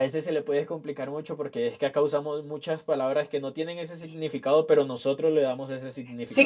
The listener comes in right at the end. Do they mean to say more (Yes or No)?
Yes